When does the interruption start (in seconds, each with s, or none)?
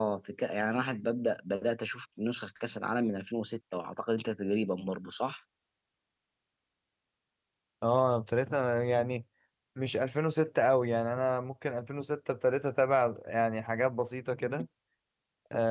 none